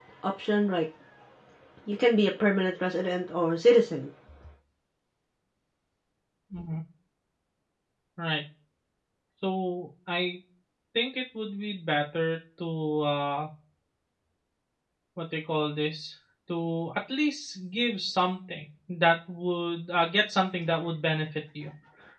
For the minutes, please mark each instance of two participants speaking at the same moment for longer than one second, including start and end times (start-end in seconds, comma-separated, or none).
none